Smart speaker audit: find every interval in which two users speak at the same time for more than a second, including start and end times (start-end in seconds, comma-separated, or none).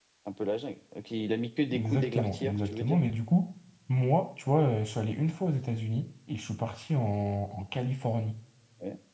1.7-3.0